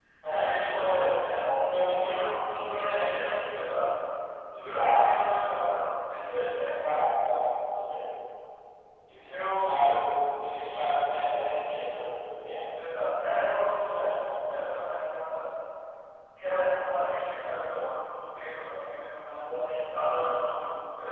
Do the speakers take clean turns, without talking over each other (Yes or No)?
No